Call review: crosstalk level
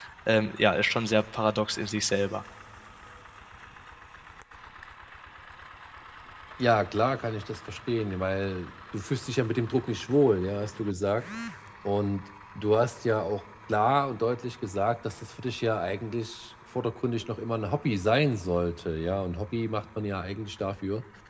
none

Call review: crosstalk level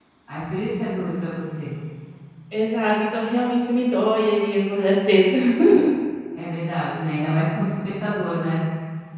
none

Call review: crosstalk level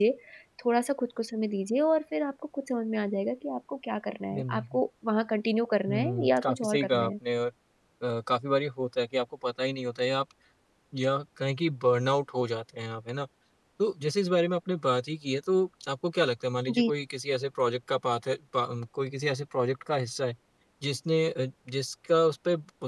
present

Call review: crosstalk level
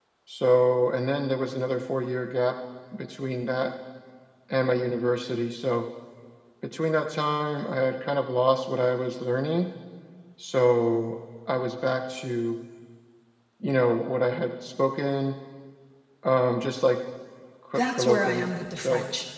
present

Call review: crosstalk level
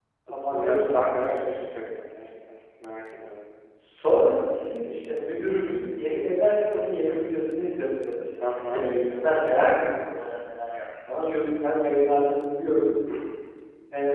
present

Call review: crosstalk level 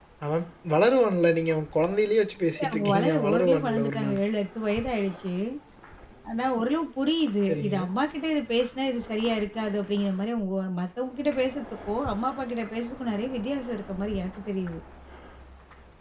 present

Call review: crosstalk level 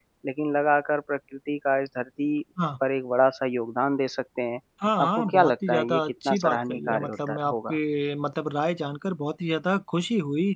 present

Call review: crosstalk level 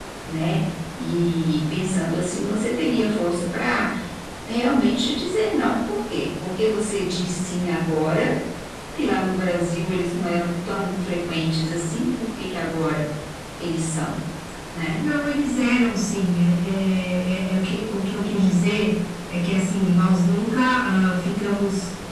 none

